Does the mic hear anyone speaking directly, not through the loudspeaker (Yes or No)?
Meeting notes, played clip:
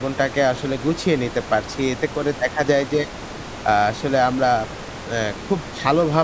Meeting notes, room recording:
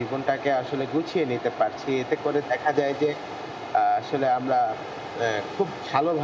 No